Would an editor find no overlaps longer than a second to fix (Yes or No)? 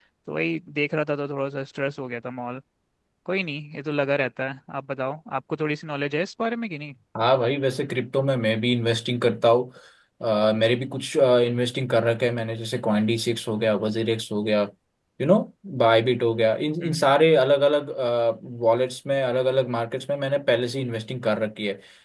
Yes